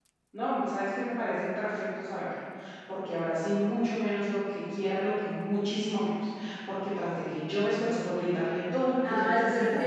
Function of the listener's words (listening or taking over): taking over